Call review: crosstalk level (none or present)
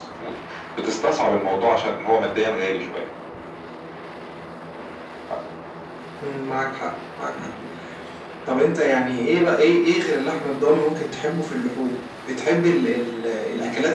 none